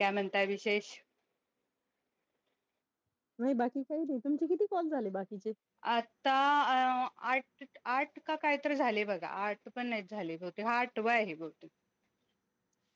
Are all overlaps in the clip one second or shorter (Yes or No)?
Yes